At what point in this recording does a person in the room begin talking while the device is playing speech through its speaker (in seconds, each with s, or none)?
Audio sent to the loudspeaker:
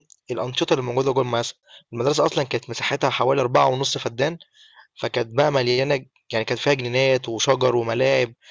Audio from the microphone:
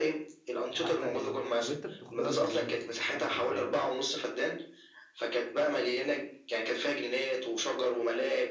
0.7 s